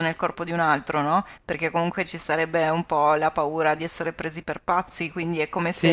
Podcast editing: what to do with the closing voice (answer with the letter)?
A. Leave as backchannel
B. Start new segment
A